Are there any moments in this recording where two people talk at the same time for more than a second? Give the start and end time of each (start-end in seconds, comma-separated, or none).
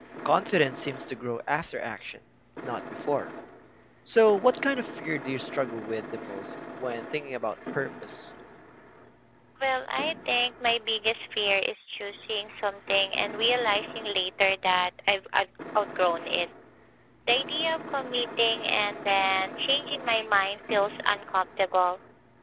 none